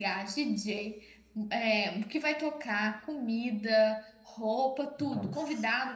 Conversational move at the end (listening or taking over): listening